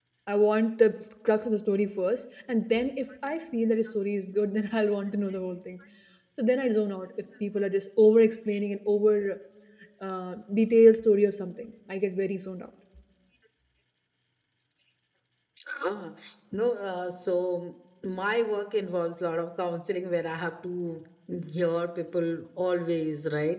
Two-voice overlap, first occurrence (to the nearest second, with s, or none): none